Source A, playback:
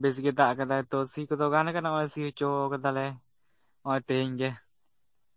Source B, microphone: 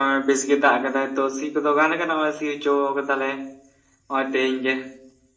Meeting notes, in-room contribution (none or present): none